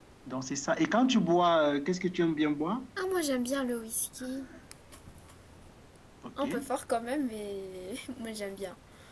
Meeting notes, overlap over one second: none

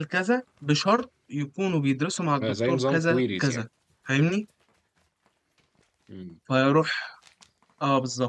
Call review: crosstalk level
present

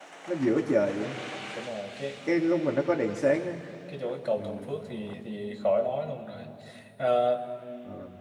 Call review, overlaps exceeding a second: none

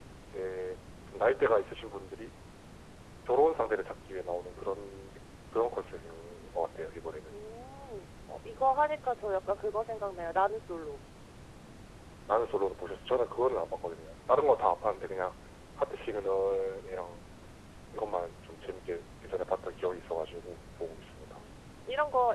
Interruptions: none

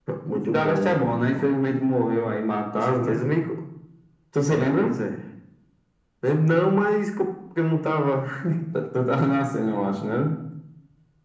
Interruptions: present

